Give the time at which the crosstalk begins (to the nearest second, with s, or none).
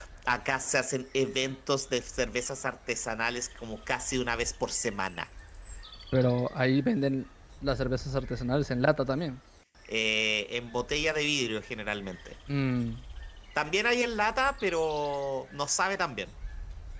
none